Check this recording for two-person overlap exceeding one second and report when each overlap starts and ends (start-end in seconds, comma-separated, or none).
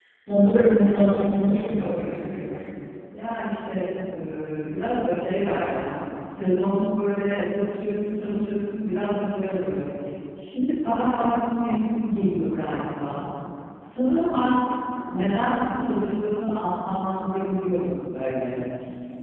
1.1-2.5